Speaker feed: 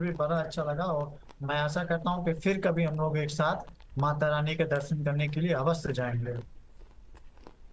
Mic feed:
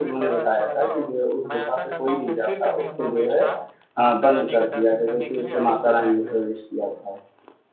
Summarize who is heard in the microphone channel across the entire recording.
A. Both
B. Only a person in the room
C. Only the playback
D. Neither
A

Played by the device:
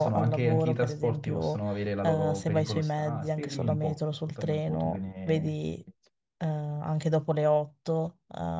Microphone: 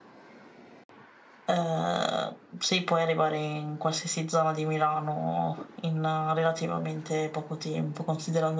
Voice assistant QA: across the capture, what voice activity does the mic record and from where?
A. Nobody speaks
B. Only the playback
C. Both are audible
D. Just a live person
D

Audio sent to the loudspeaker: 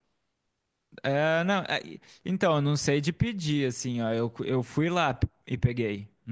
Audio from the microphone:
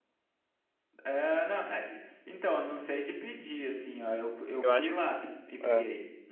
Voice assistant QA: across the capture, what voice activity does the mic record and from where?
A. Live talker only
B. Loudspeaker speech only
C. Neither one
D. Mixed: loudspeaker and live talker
D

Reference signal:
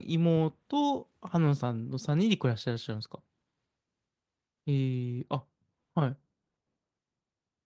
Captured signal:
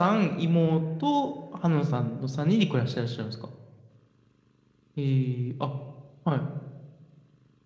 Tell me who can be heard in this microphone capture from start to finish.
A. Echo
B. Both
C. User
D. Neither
A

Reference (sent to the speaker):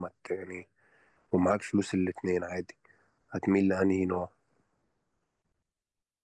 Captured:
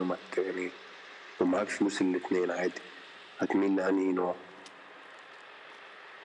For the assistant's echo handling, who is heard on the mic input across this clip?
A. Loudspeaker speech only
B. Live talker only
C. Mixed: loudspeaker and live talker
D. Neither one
A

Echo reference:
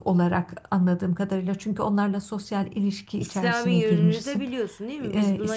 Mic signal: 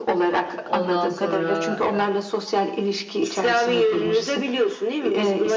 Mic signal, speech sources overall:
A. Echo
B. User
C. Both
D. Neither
C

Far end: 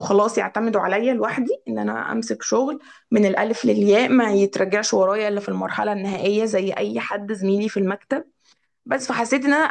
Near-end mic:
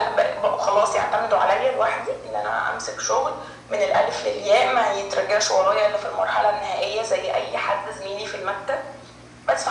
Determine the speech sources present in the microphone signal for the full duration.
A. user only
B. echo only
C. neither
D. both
B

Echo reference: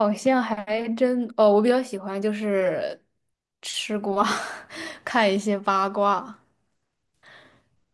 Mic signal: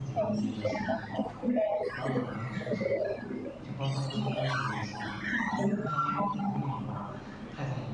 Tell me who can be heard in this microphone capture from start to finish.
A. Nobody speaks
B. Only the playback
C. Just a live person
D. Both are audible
D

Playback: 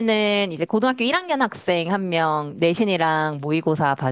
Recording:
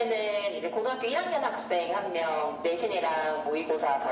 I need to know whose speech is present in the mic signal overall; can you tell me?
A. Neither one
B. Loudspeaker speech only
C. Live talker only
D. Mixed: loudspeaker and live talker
B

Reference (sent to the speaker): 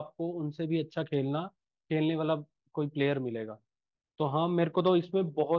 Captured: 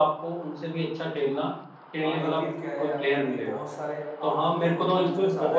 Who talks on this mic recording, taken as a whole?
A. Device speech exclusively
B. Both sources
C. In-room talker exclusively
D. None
B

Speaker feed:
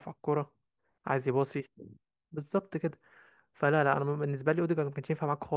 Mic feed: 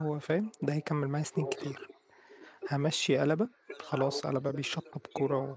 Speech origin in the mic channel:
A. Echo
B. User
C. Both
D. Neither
C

